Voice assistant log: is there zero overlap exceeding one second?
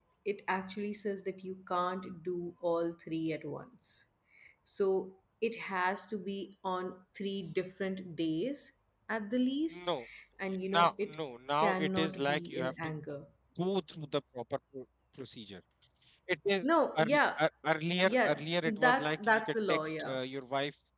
No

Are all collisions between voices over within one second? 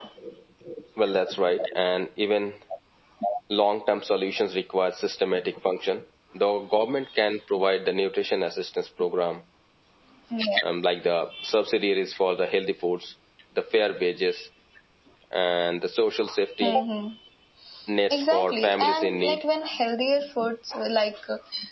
No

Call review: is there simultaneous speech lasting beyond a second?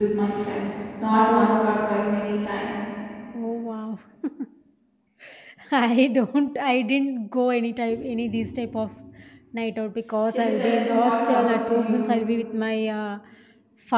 Yes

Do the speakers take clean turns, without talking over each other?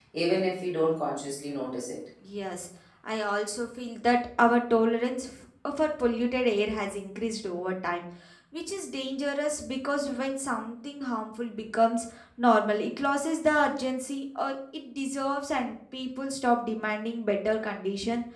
Yes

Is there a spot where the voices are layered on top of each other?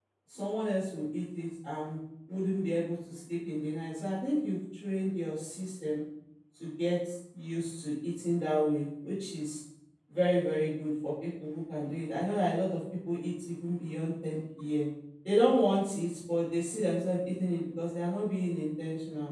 No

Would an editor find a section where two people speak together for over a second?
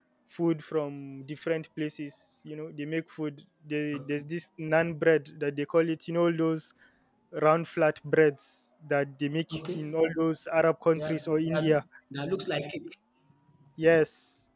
No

